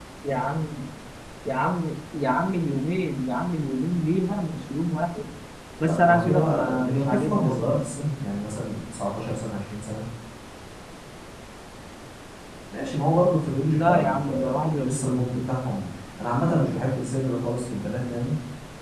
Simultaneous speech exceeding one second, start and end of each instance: 5.8-7.7, 13.7-15.2

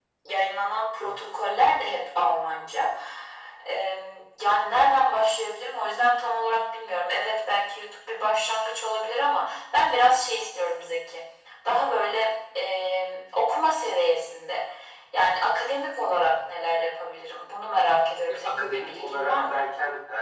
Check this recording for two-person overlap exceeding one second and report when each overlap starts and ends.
18.3-19.6

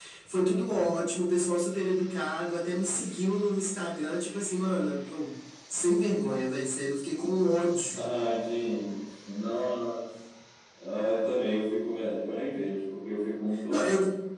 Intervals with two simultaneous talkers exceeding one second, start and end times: none

